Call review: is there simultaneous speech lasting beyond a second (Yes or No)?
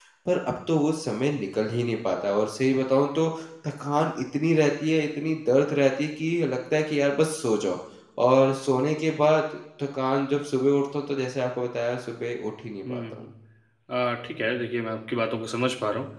No